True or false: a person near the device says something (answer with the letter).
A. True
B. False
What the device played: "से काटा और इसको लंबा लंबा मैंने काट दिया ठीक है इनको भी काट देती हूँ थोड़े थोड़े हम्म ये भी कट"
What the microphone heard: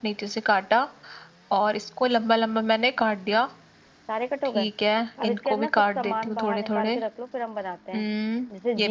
A